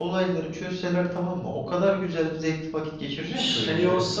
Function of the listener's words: taking over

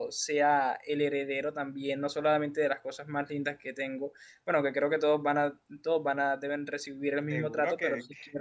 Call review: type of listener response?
taking over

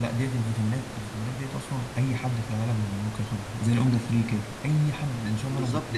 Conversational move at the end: taking over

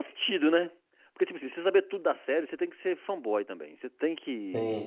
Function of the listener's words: listening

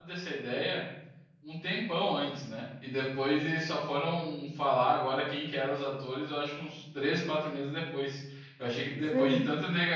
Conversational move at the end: listening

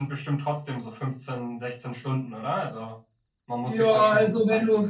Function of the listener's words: taking over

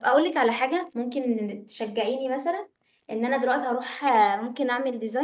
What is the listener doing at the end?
listening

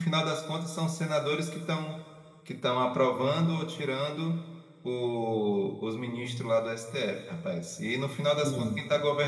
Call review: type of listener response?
listening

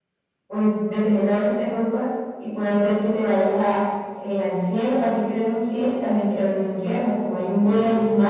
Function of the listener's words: listening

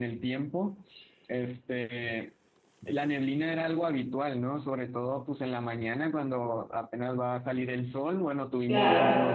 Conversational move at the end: listening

